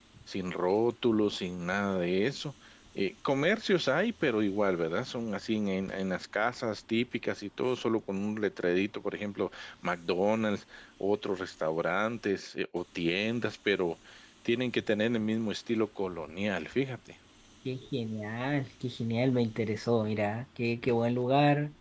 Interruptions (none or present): none